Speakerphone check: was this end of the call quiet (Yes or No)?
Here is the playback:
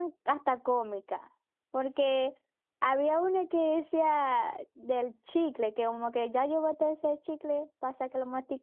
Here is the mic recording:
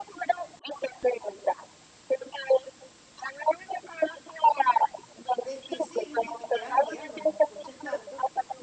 No